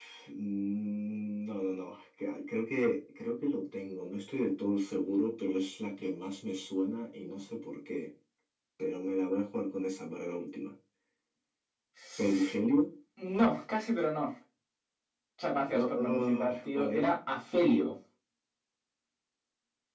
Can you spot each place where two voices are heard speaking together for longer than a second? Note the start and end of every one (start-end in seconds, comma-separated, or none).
15.6-17.2